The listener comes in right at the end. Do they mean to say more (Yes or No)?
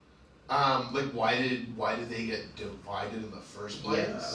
Yes